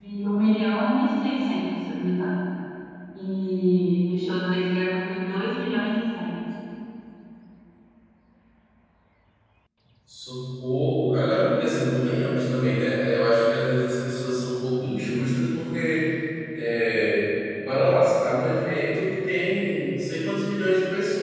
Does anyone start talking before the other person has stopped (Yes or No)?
No